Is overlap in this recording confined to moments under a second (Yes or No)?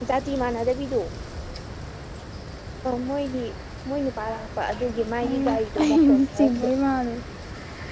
No